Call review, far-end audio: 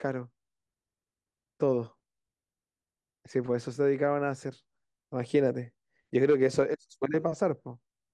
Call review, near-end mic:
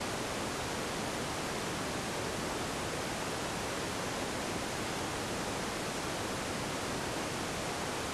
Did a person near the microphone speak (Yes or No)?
No